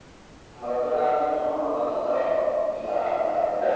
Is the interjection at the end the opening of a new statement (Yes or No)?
Yes